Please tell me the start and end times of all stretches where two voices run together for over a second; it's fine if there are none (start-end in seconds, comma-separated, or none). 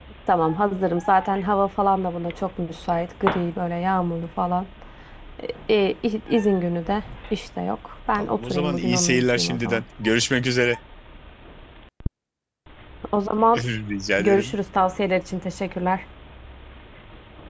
8.2-9.8